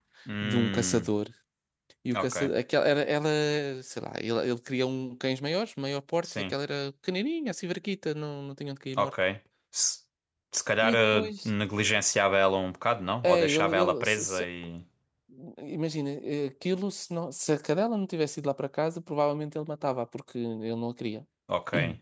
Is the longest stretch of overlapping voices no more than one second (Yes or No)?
No